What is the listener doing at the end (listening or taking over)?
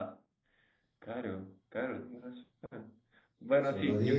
listening